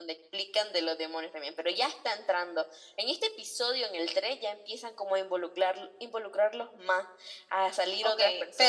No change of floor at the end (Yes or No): No